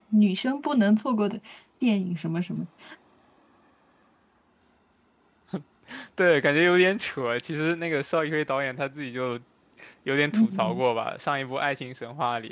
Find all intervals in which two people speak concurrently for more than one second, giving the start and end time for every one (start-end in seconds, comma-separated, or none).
none